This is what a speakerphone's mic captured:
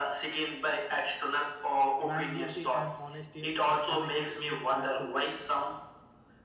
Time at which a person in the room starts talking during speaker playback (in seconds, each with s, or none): 2.0 s